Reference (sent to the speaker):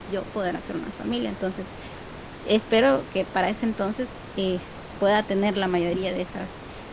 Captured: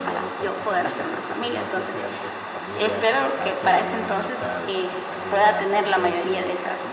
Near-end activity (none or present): present